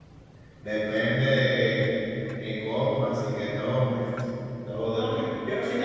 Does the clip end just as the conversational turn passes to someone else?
Yes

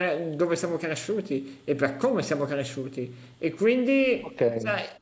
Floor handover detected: No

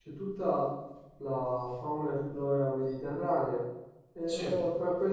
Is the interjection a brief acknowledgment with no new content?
Yes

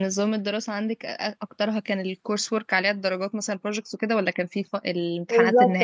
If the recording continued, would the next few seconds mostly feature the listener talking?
Yes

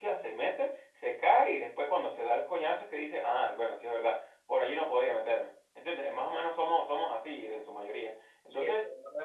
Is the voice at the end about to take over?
Yes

